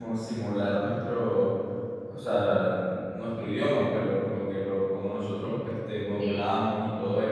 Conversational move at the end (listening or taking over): listening